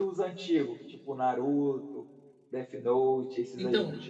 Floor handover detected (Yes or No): Yes